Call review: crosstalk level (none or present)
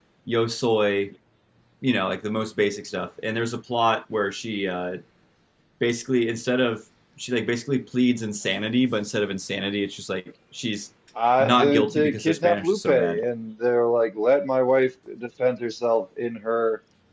present